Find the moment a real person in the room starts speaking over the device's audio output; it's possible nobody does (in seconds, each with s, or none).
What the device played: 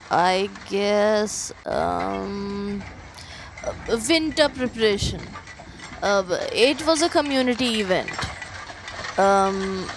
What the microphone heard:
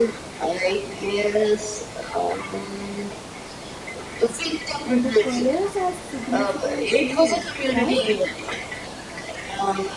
4.8 s